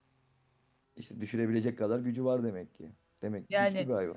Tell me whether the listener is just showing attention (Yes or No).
No